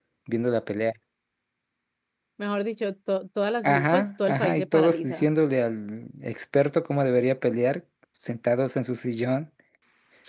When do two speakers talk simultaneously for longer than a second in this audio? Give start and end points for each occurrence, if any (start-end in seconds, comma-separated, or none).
3.6-5.3